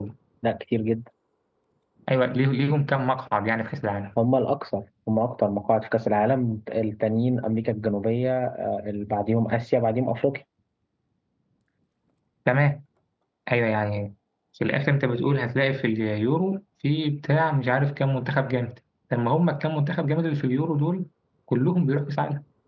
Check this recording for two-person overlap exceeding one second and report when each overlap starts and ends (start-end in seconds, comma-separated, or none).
none